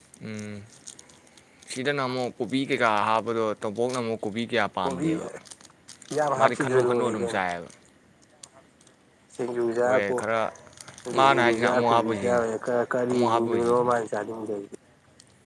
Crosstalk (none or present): present